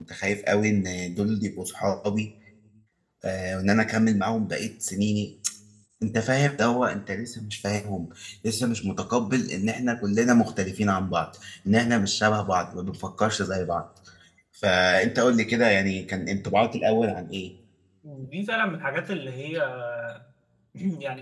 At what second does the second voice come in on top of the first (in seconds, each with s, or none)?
none